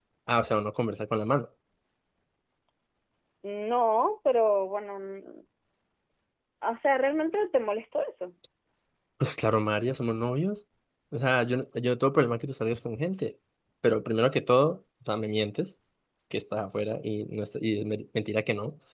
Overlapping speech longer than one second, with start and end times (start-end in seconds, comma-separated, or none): none